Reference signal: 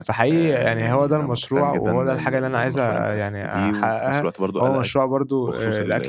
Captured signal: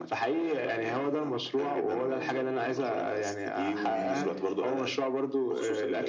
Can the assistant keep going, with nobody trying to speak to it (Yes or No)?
No